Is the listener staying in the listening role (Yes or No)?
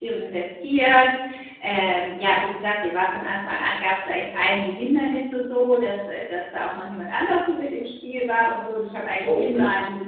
Yes